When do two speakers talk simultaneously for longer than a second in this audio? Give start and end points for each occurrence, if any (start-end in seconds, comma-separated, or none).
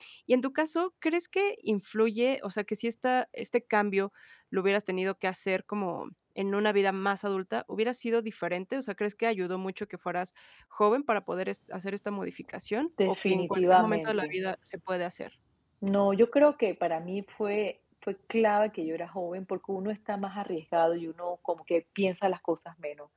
13.1-14.3